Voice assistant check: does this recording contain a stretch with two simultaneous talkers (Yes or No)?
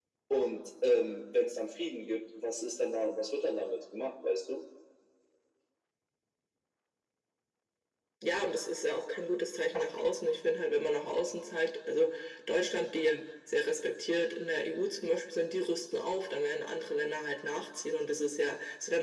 No